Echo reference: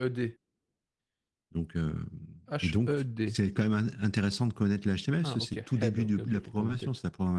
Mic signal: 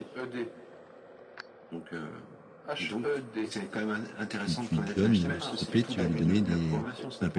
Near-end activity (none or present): present